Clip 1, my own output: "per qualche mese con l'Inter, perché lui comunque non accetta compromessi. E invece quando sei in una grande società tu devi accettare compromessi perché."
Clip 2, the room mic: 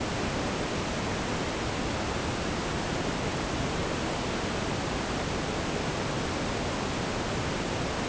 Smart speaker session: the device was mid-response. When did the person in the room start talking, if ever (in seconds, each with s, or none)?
none